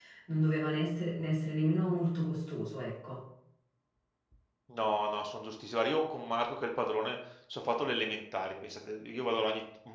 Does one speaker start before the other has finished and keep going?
No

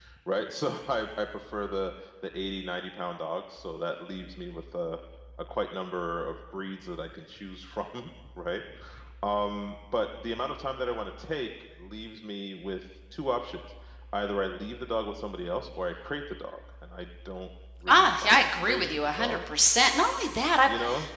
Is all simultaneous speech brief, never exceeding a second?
No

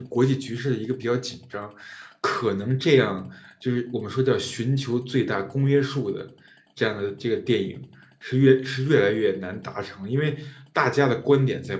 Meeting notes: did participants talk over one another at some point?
No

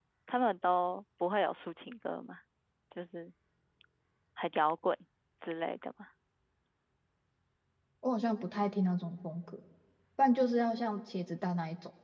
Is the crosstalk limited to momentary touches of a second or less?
Yes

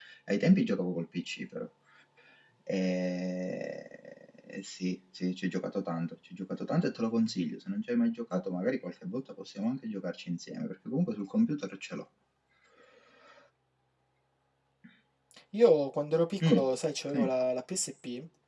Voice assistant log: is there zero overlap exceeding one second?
Yes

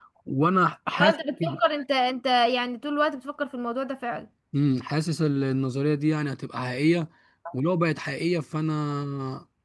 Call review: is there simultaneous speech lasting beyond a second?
No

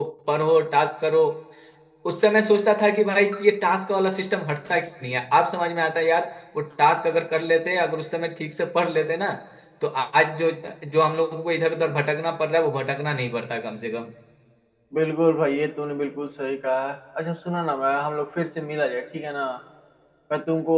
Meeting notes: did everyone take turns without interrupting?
Yes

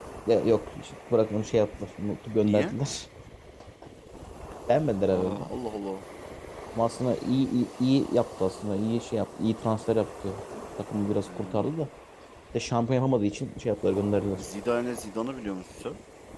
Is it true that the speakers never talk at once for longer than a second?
Yes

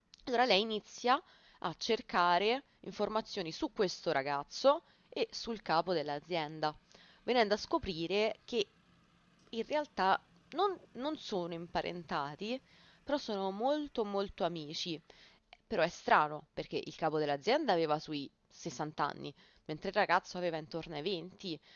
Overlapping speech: No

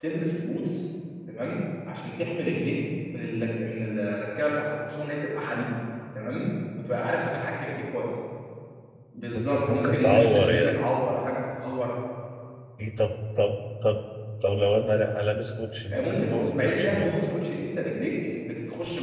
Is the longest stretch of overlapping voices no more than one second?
No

